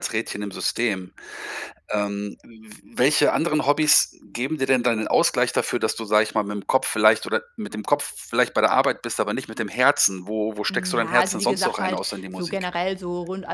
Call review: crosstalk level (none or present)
present